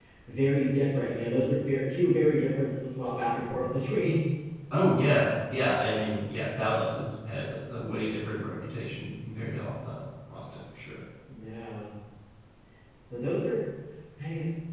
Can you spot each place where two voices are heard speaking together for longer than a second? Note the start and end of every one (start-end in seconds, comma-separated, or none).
none